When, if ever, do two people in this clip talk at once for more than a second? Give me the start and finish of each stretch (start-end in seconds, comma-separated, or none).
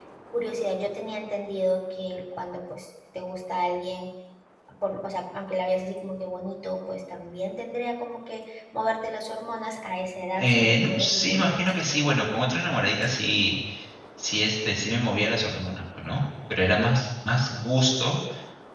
10.4-11.8